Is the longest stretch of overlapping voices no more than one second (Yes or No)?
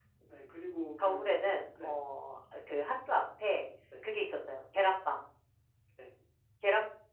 Yes